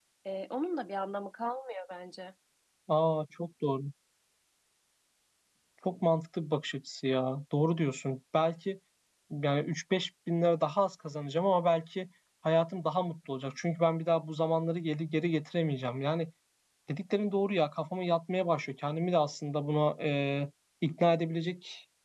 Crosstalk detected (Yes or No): No